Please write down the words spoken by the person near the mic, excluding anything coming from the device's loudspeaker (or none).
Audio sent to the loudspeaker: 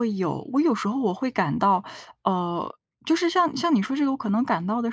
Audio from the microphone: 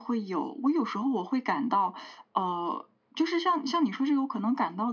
none